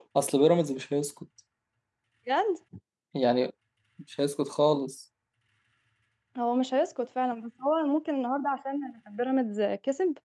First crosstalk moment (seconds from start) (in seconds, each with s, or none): none